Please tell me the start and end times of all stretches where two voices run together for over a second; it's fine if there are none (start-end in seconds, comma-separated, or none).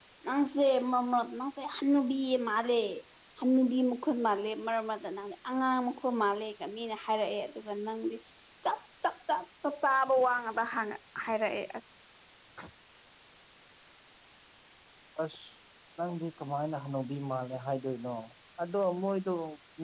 none